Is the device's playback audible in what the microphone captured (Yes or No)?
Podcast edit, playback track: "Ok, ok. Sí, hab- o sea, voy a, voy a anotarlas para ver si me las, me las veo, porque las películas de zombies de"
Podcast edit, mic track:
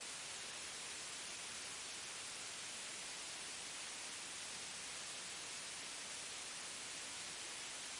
No